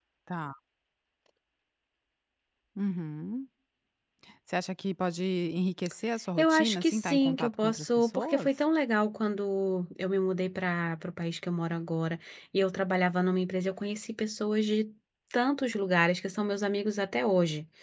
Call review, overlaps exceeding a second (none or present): present